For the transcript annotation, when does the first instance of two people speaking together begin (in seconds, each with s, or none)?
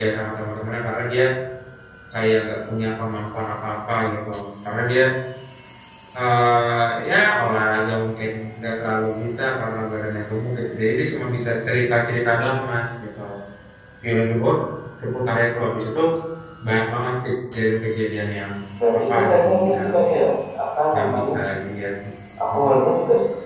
19.0 s